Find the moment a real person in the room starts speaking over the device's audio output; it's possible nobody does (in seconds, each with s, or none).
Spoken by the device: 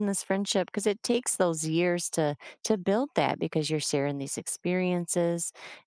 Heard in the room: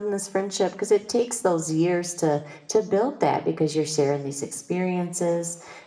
none